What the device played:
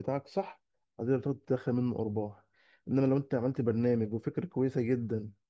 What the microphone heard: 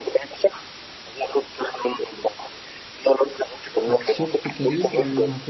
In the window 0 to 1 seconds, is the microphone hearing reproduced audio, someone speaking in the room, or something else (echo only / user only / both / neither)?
echo only